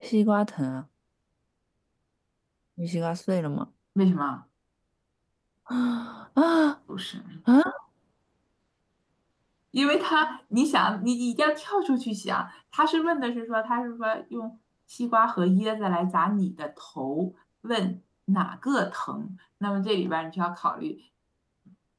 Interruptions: none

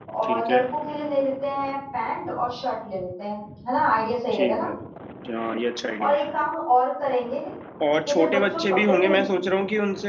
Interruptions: present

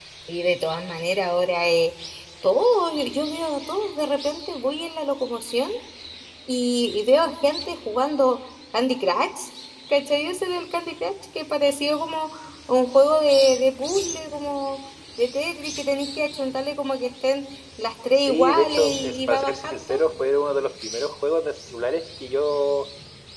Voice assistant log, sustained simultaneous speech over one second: present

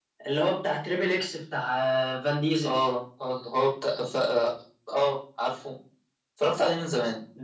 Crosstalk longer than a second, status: none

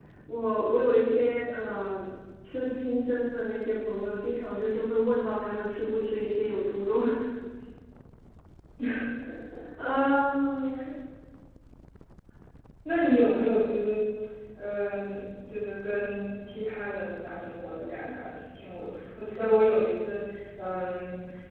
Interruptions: none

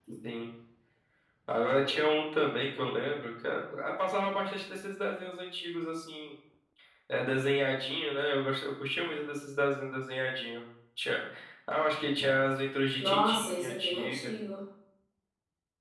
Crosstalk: present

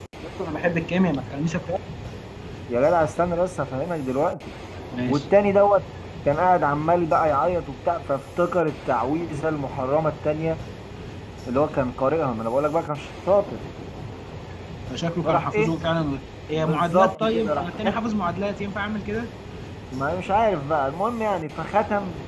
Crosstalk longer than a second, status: present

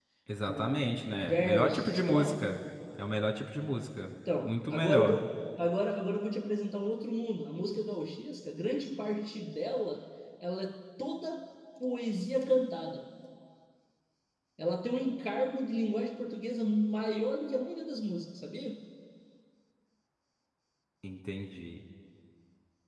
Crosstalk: present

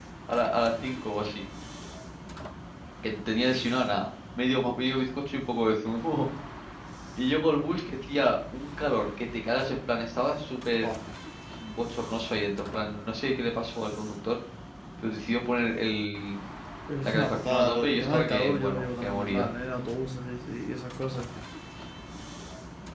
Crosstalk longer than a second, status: present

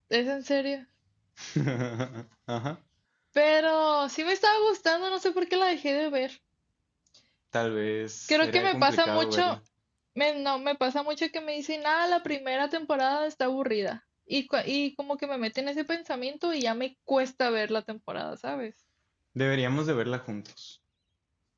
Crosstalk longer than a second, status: present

